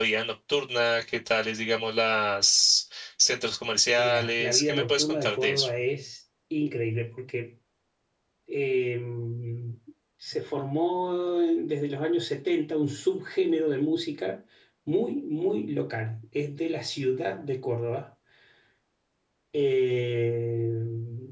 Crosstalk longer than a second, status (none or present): present